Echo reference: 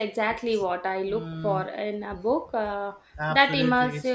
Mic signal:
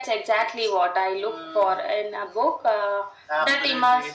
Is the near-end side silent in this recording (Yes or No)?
Yes